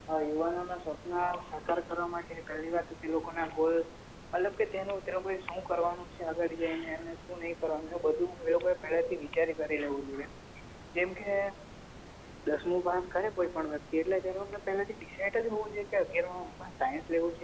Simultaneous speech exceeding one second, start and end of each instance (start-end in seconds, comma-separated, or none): none